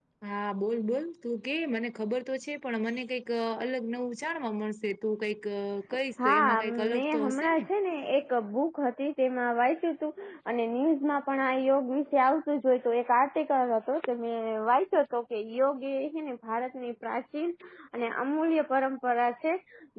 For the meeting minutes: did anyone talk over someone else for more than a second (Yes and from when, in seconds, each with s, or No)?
Yes, from 6.2 s